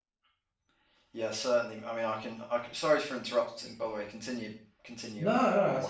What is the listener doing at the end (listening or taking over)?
taking over